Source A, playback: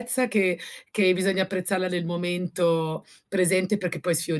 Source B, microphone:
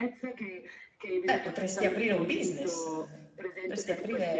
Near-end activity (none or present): present